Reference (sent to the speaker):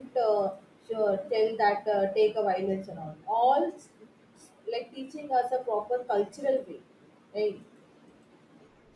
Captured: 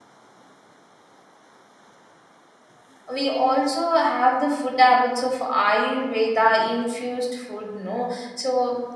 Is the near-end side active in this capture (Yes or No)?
Yes